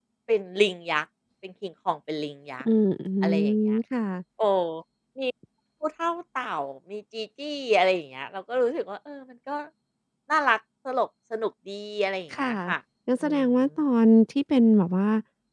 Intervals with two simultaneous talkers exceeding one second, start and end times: none

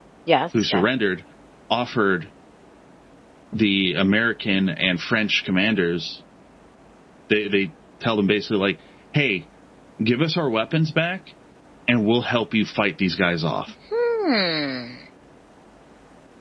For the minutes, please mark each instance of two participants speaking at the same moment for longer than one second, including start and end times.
none

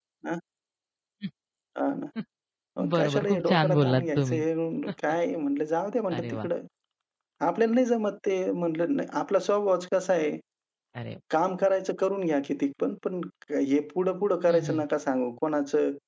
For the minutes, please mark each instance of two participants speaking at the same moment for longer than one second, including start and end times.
2.9-4.4

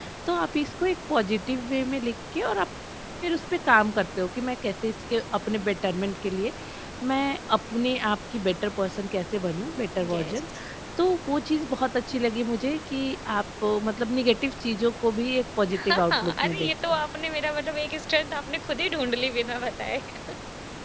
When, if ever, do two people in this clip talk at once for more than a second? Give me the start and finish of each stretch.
15.7-16.9

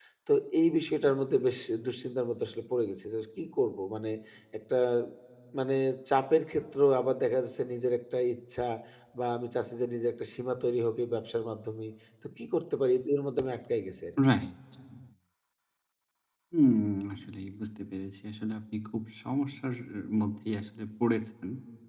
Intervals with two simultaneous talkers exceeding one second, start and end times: none

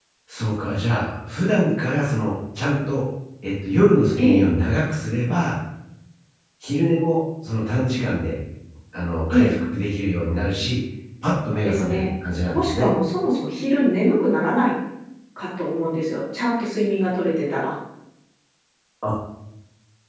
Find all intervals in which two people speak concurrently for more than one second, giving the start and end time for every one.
none

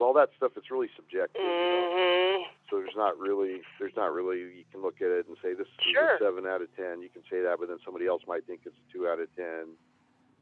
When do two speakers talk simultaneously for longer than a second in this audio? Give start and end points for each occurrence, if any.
none

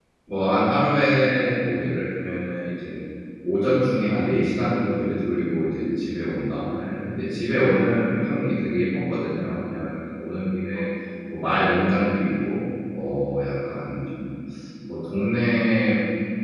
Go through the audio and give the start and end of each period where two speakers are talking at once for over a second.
none

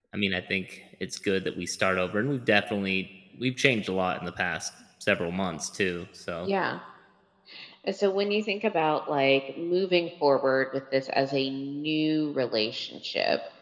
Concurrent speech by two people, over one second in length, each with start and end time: none

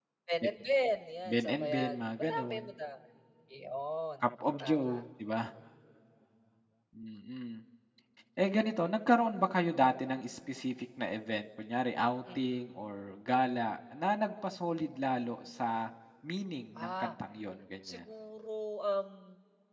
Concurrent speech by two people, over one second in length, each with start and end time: 1.3-2.6

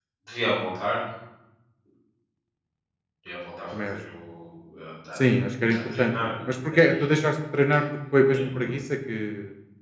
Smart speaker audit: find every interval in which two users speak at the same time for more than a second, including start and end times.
5.8-7.0

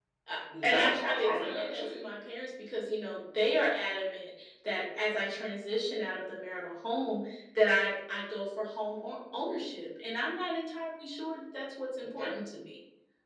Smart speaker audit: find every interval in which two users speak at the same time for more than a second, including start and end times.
0.6-2.0

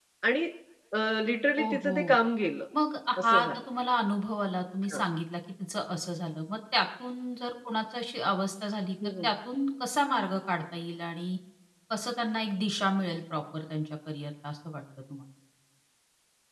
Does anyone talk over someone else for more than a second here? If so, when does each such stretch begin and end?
none

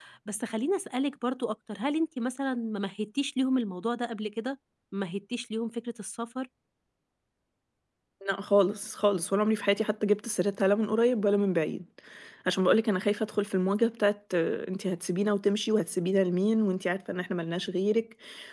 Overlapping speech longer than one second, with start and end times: none

